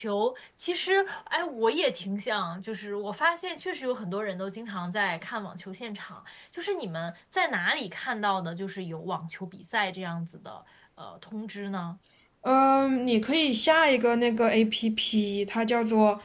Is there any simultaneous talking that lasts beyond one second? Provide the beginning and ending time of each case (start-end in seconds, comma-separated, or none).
none